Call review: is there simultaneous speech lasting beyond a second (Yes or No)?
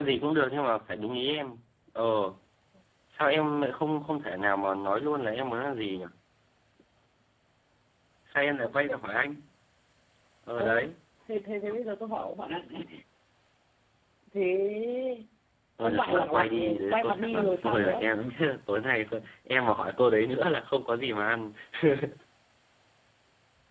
Yes